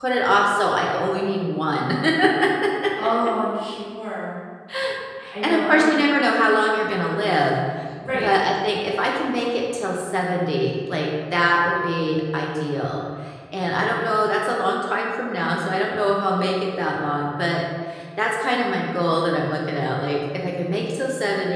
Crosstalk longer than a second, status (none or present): none